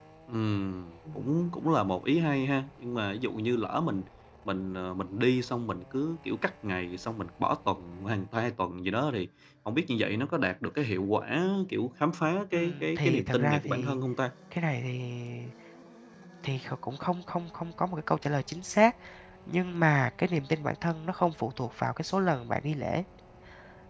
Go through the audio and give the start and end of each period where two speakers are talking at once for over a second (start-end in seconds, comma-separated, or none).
12.5-14.0